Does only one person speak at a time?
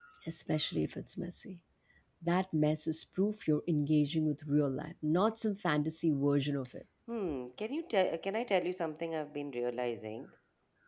Yes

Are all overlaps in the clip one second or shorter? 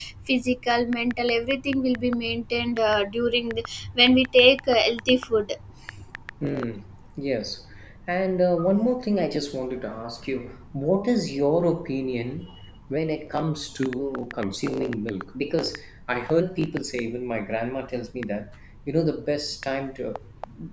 Yes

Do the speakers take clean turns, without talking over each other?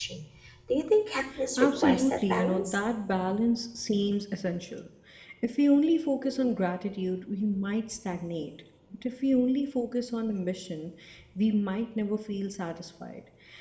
No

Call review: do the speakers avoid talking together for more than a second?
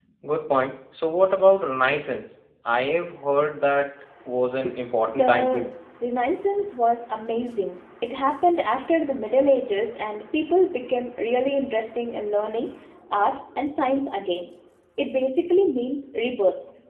Yes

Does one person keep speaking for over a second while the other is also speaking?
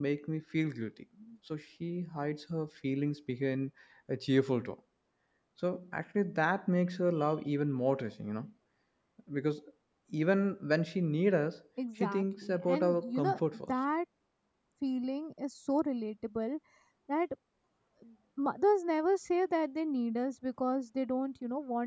Yes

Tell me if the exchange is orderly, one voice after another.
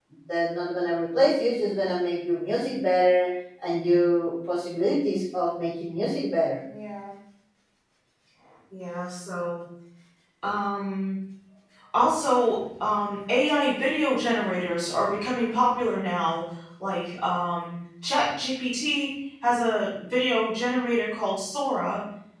Yes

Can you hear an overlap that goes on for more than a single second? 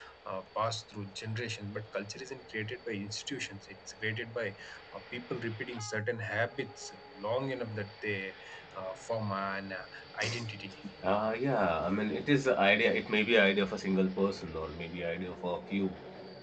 No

